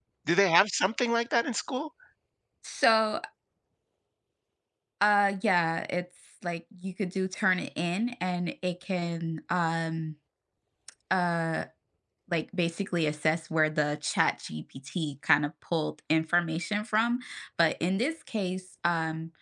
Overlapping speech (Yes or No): No